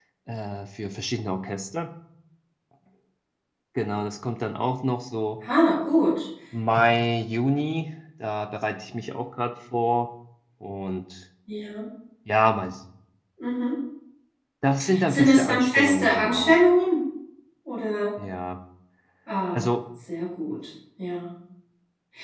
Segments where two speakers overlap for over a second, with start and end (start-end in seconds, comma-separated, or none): 15.1-16.6